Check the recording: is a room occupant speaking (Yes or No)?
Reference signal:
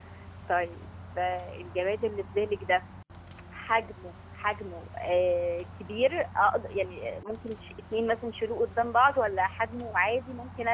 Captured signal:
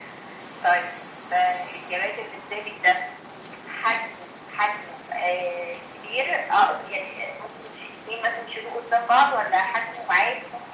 No